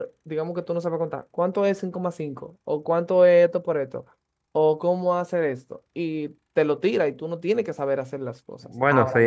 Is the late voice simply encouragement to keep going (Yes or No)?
No